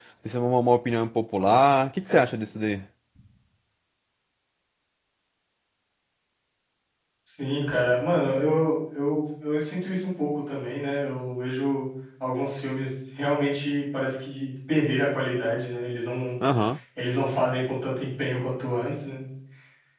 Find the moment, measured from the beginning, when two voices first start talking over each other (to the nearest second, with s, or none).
none